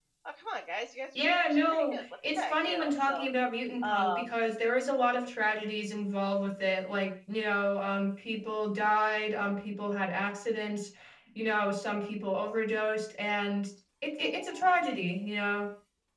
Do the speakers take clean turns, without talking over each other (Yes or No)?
No